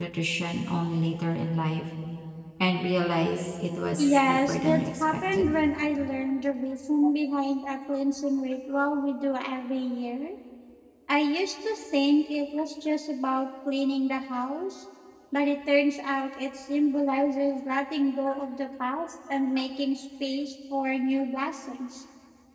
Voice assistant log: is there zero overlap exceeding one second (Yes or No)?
No